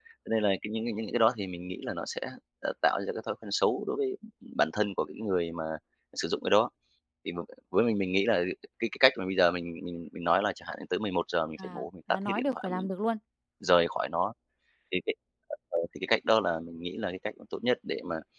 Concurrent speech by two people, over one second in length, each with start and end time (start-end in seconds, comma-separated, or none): 11.6-12.9